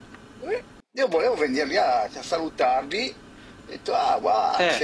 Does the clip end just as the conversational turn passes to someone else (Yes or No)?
No